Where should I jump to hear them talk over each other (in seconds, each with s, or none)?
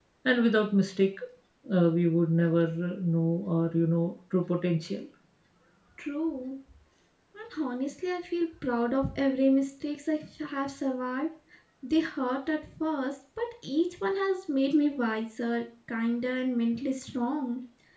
none